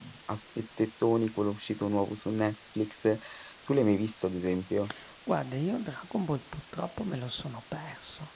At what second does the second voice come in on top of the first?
none

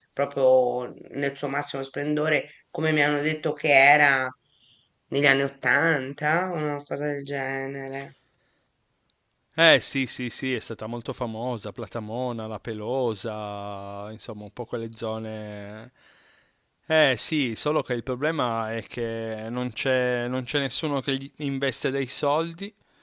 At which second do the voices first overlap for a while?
none

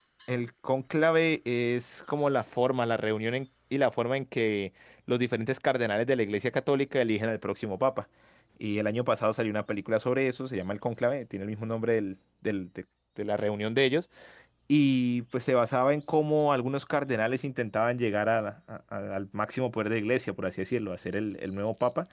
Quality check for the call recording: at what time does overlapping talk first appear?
none

